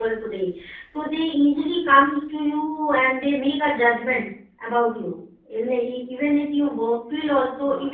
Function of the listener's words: taking over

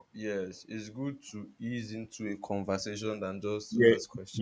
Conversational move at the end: taking over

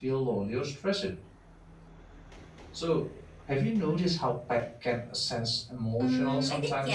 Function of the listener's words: taking over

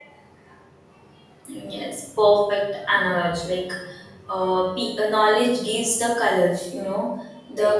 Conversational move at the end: listening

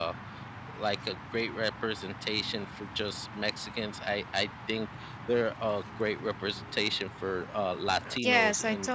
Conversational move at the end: taking over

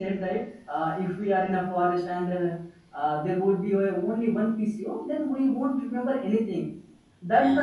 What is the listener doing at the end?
listening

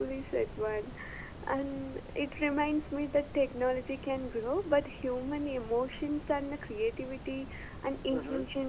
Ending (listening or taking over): listening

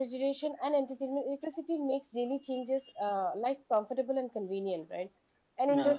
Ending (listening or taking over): listening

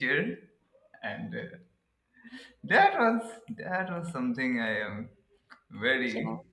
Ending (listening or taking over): listening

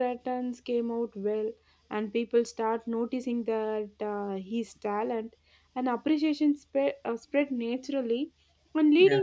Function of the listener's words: listening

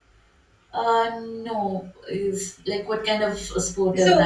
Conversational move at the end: taking over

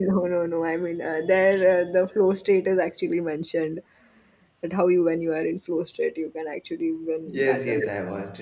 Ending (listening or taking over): taking over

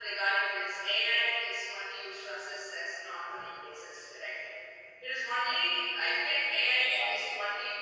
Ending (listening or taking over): listening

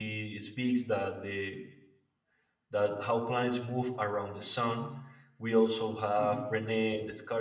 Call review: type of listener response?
listening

